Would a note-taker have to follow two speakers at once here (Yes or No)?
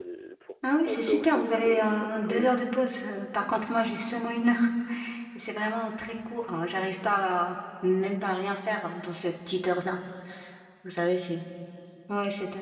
Yes